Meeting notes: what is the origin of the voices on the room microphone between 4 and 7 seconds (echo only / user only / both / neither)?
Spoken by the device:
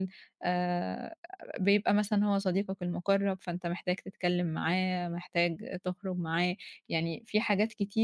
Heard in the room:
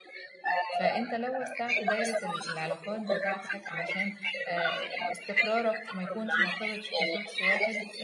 both